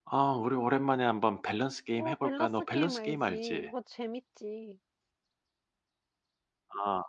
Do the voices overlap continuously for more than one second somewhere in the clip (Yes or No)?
Yes